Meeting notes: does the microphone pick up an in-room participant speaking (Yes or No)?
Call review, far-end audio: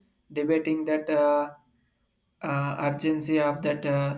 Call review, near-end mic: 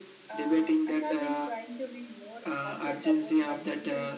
Yes